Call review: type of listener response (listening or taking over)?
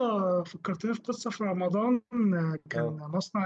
listening